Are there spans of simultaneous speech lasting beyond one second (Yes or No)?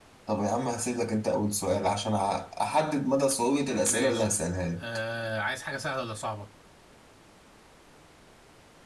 No